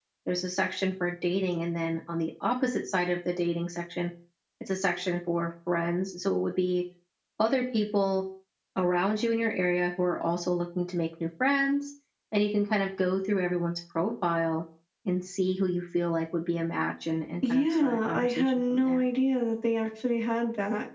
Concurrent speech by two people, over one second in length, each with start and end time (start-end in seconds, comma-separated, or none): 17.5-19.1